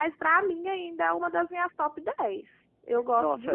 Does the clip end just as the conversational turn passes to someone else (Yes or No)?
Yes